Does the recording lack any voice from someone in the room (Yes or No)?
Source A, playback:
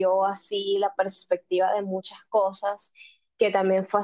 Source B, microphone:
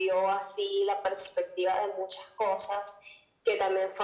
Yes